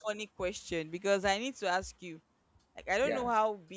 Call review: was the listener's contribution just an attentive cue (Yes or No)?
Yes